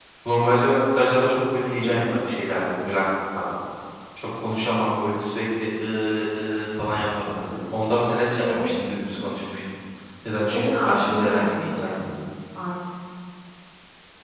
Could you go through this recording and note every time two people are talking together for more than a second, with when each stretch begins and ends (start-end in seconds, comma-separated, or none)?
10.4-12.0